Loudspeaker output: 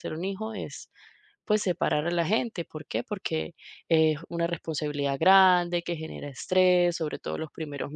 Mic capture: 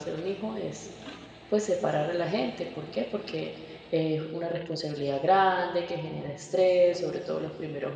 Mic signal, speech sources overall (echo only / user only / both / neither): echo only